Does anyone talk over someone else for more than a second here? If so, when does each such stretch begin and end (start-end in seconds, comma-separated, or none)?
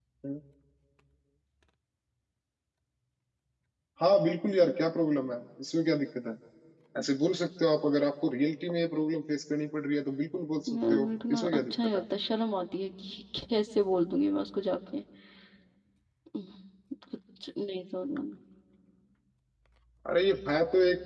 10.7-12.0